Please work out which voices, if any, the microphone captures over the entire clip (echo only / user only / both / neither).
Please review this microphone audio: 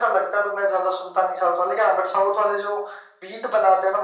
echo only